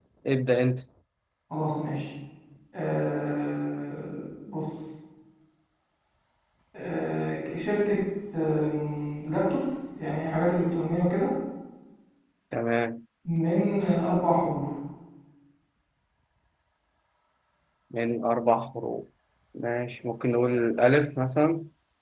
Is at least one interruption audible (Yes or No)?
No